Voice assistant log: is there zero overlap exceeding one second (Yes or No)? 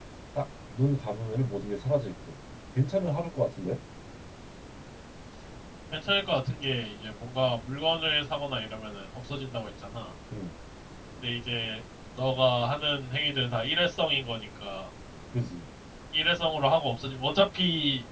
Yes